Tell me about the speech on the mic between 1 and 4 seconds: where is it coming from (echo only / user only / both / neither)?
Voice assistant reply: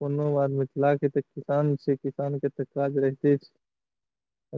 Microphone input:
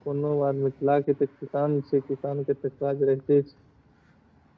echo only